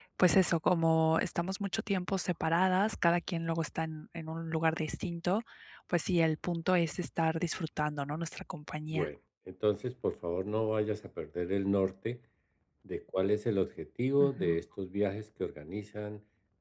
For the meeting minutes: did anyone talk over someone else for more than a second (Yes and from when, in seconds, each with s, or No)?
No